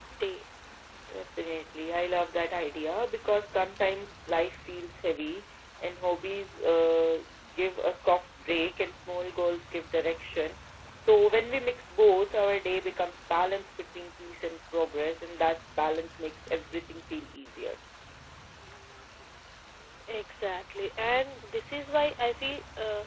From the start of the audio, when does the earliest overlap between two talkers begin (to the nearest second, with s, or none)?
none